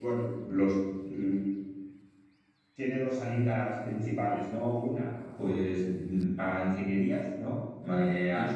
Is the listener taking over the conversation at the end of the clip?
No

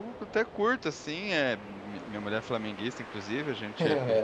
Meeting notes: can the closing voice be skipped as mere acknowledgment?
Yes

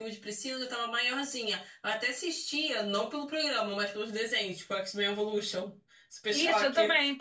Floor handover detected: Yes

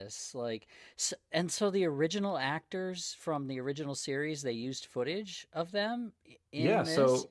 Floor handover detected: Yes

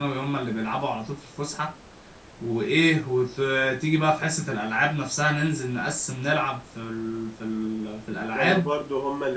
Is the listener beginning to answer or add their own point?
Yes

